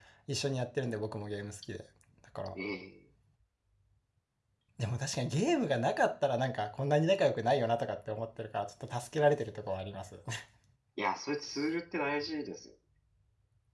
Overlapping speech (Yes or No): No